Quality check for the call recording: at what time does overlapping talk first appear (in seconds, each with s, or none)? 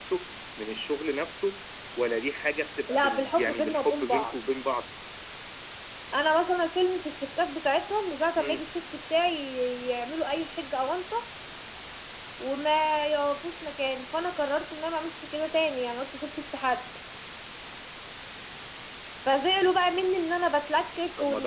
2.9 s